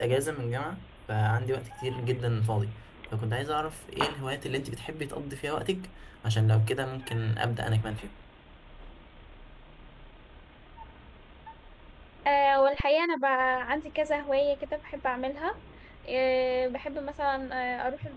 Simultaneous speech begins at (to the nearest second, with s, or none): none